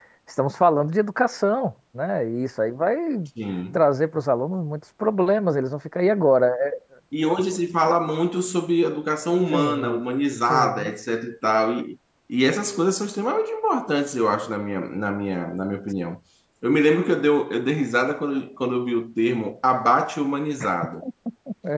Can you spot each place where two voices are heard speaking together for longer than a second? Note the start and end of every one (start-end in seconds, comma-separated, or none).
none